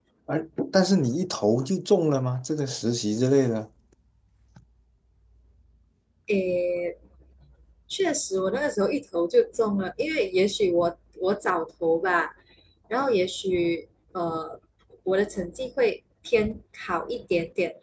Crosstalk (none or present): none